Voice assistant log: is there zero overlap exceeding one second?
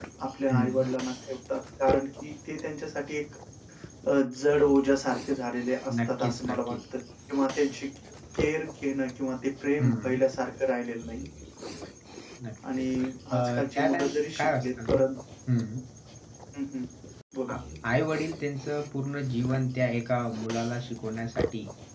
No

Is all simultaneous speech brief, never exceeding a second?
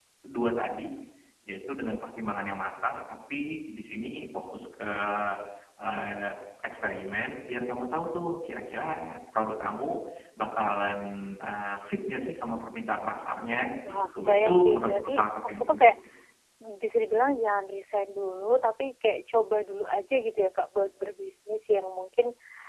No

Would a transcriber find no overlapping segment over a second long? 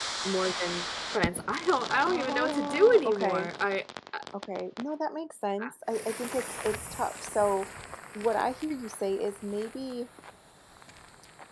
No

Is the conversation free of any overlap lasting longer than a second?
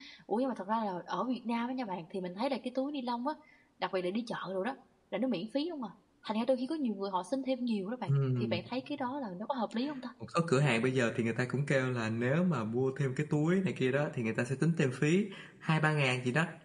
Yes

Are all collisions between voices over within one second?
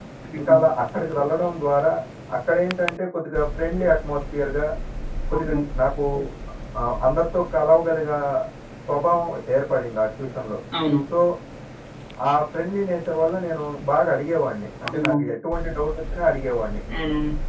Yes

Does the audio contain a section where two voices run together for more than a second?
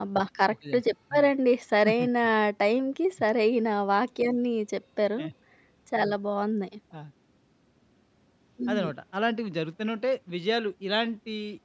No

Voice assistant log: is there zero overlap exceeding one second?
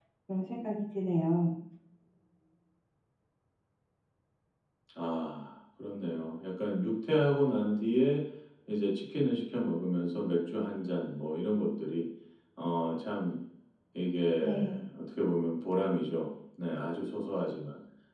Yes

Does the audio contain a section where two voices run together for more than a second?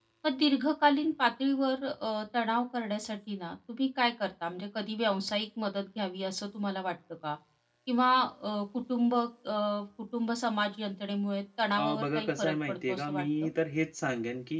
Yes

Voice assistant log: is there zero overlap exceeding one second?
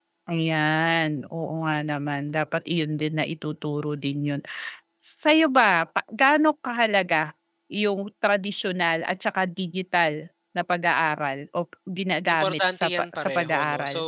No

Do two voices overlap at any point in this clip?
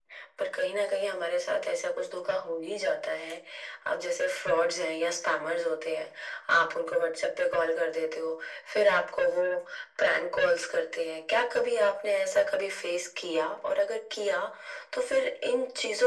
No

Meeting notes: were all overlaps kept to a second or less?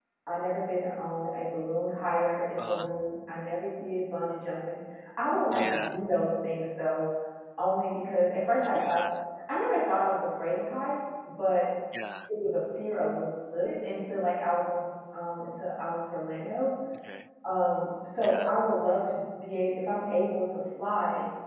Yes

